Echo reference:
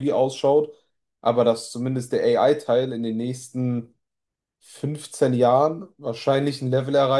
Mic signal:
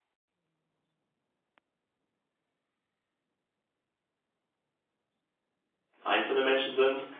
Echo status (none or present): none